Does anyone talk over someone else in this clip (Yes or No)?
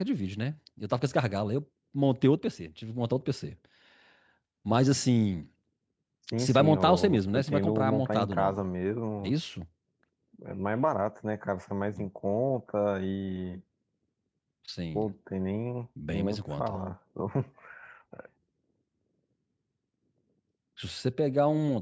Yes